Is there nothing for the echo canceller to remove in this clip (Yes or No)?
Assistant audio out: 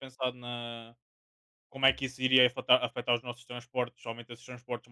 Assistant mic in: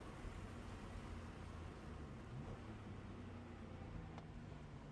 Yes